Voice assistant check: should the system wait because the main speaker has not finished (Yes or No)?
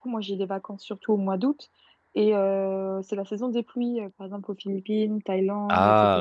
Yes